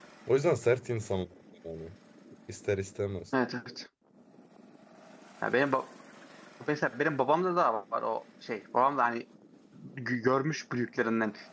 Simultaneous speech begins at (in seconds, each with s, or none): none